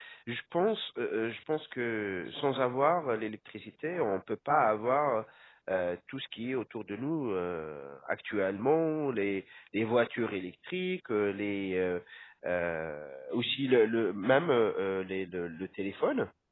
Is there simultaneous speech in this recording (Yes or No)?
No